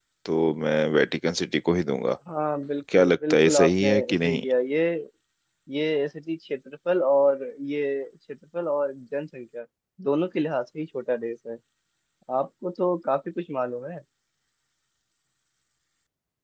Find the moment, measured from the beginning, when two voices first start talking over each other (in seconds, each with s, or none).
3.0 s